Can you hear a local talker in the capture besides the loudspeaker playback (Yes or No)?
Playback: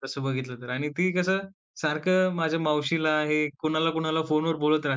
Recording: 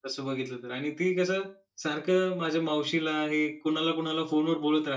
No